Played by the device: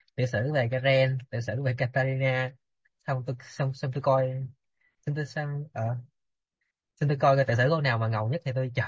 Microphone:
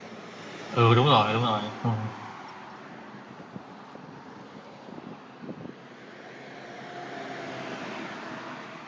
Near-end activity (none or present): present